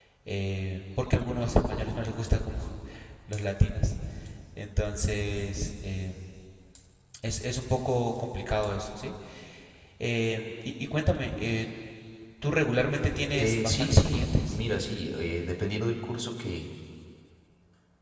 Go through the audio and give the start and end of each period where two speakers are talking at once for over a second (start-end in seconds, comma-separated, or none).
13.3-14.6